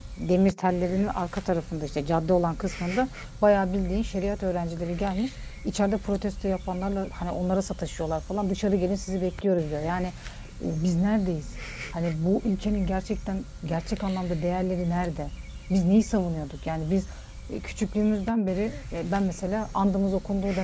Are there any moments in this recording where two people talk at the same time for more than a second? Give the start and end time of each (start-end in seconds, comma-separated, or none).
none